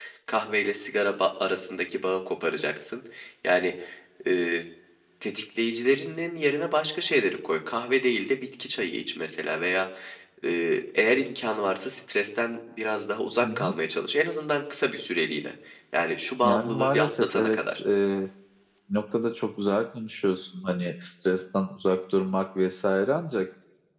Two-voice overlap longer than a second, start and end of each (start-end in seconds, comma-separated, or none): 16.4-17.8